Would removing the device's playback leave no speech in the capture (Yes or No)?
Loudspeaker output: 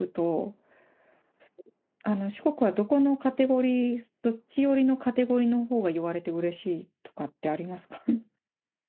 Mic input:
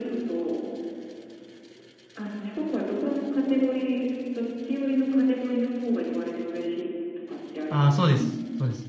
No